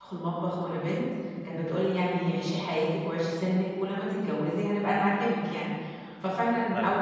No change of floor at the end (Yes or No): Yes